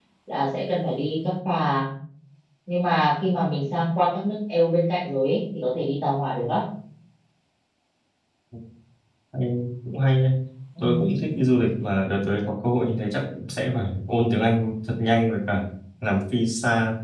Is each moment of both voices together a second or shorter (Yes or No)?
Yes